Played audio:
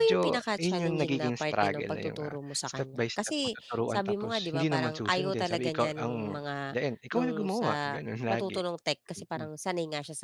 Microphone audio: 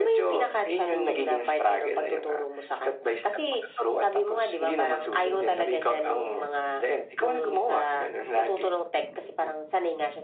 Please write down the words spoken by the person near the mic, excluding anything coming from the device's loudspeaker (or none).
none